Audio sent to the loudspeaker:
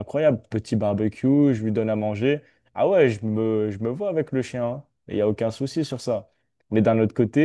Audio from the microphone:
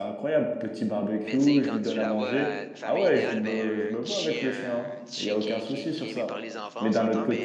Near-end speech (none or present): present